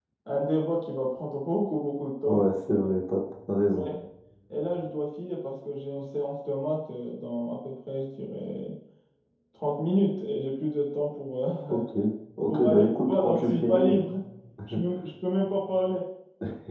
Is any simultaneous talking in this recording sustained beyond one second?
Yes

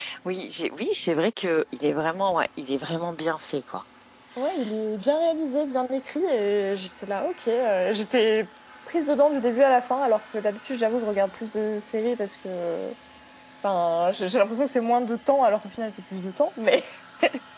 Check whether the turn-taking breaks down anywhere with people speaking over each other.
No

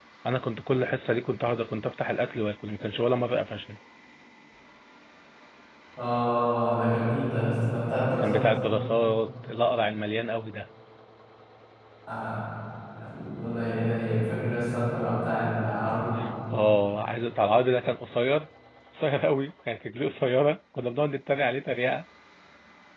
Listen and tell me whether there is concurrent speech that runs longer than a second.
No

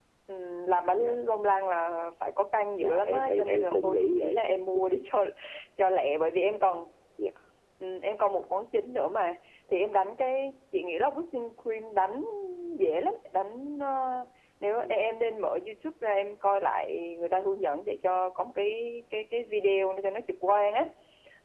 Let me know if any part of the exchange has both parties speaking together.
Yes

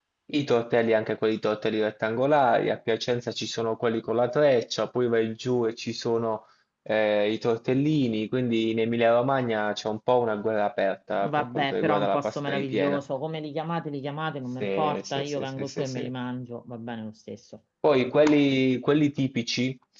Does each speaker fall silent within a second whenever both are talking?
No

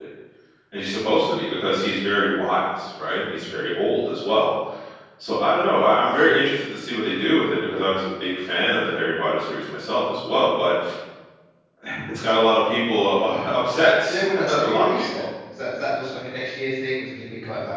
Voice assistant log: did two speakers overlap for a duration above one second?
Yes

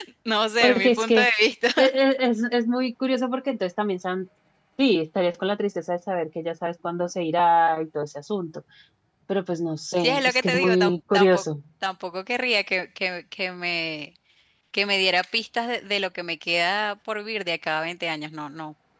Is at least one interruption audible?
Yes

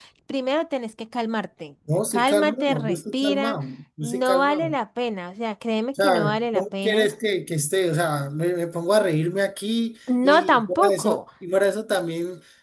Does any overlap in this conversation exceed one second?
Yes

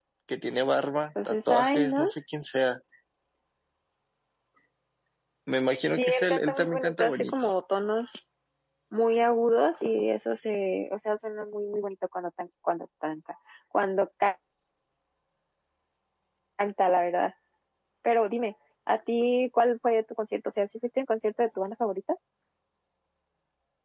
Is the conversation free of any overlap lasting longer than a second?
No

